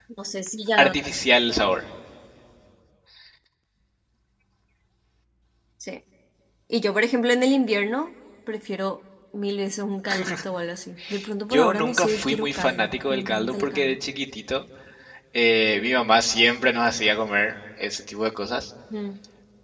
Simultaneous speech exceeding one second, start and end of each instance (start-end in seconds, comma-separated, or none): 11.5-14.0